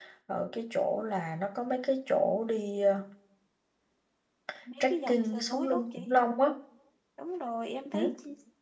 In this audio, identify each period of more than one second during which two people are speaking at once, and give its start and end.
4.8-6.0

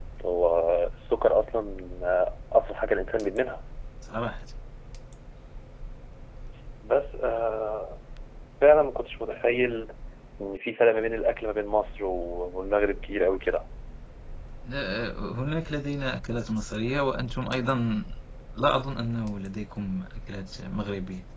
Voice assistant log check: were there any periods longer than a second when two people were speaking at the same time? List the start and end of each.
none

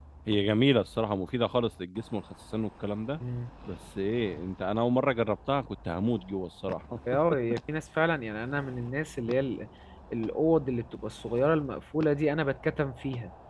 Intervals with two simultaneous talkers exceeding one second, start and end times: none

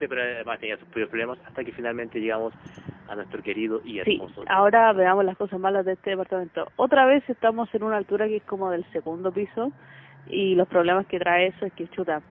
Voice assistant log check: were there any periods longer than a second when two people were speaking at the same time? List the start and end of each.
3.9-5.1

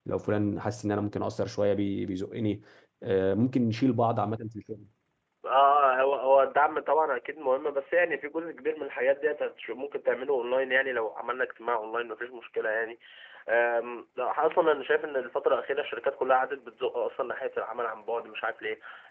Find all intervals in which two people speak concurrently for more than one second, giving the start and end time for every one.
none

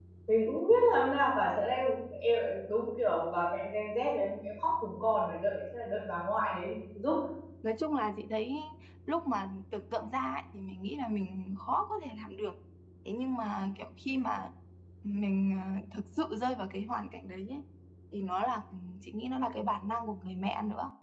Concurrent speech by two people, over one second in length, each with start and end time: none

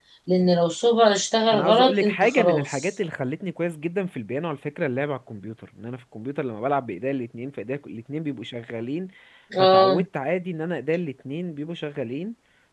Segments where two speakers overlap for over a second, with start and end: 1.5-2.9

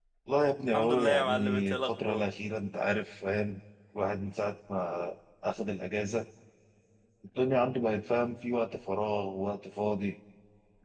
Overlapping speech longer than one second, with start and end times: 0.7-2.3

